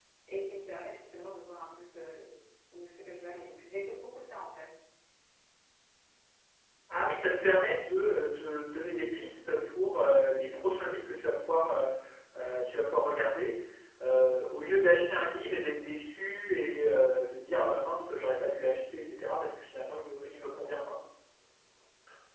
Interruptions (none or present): none